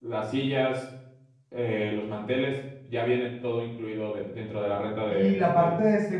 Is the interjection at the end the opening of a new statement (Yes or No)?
Yes